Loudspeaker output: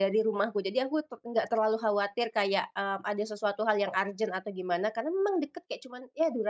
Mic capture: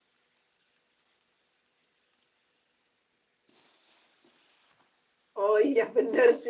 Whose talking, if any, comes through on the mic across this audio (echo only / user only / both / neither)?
user only